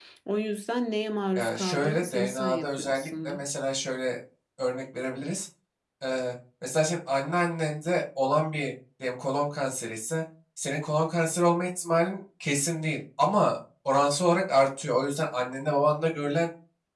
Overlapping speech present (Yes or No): Yes